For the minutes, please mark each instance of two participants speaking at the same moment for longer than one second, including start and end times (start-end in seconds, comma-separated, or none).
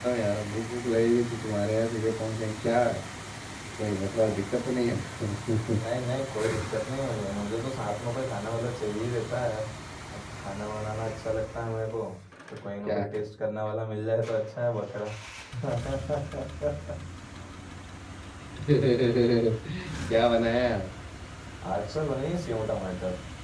none